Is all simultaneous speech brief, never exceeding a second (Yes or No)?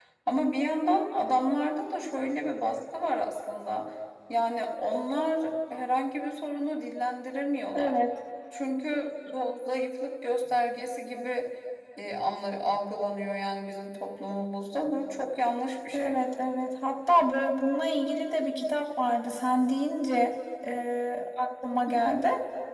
Yes